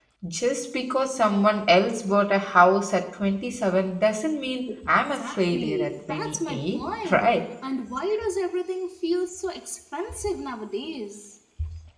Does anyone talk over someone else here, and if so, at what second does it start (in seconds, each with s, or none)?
4.7 s